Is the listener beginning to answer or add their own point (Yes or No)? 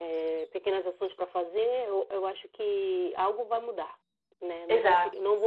No